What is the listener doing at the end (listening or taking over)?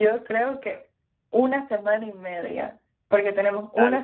listening